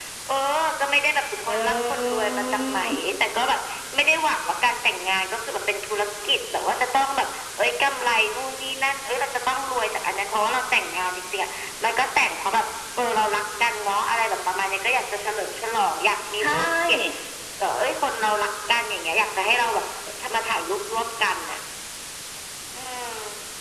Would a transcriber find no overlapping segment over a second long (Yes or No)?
No